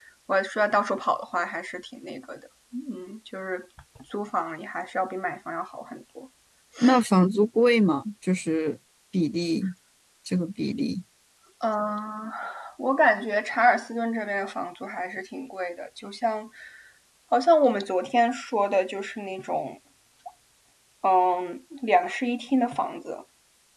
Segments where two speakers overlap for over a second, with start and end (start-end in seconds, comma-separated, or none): none